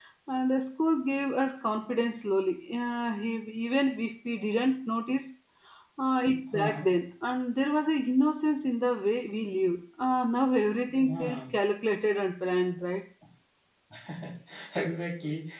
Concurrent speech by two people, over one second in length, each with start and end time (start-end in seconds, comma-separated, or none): none